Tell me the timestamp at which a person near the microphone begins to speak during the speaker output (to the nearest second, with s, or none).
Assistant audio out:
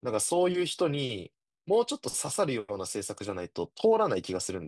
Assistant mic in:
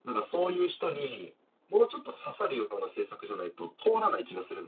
none